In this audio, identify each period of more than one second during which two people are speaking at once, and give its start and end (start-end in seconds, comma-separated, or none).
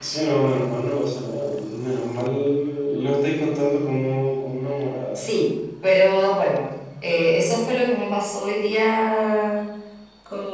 none